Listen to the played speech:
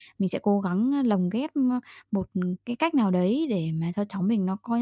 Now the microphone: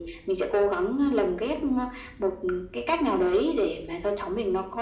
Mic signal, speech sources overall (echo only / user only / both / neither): echo only